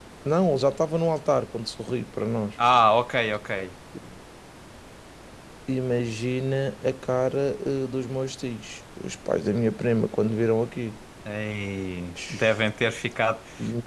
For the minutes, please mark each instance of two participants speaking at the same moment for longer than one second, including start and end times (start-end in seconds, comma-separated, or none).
none